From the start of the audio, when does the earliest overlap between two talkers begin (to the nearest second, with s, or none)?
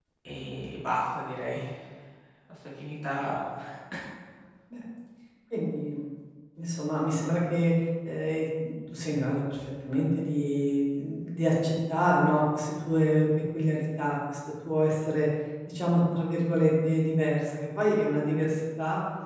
none